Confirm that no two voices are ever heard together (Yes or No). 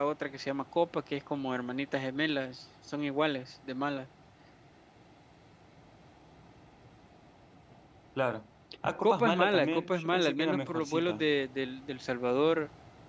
No